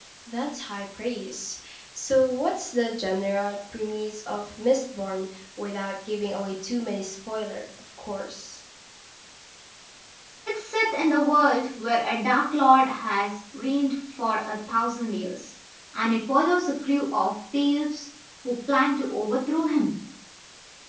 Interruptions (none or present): none